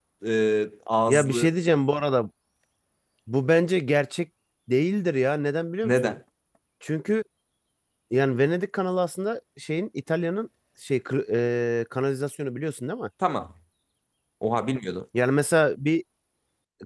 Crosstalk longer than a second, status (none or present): none